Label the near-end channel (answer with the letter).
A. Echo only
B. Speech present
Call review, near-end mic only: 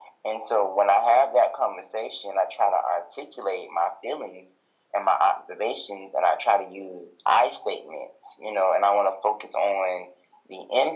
A